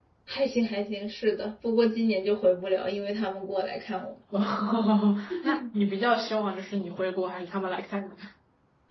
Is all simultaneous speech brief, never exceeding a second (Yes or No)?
Yes